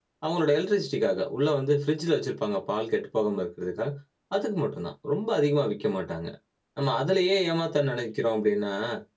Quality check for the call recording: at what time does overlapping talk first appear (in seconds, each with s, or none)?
none